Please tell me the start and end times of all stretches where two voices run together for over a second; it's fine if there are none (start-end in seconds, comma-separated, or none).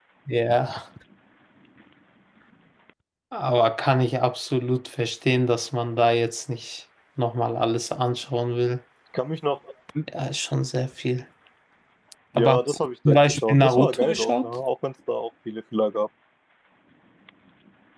12.4-14.5